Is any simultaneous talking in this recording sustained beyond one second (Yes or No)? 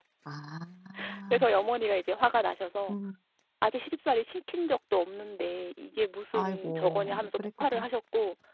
Yes